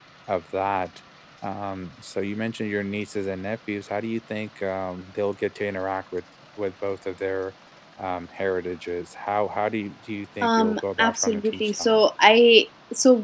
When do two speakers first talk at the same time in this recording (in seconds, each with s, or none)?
10.4 s